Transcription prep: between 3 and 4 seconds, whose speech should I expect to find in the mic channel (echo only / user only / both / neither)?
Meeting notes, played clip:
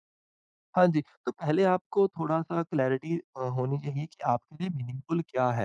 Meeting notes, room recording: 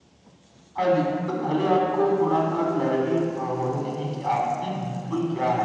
echo only